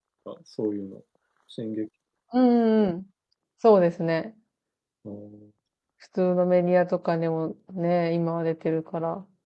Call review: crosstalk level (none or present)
none